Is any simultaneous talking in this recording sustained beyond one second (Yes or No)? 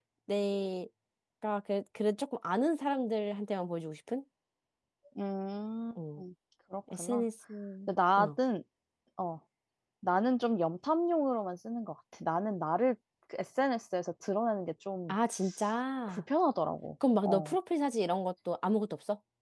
No